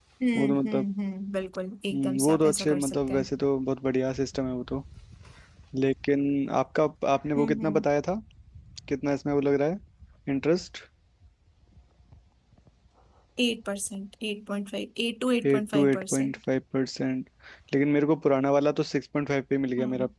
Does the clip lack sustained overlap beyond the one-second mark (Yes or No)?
No